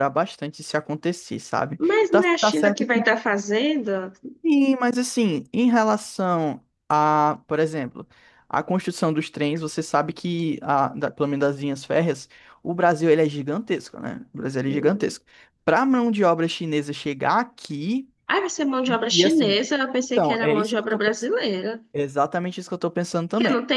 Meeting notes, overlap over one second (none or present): present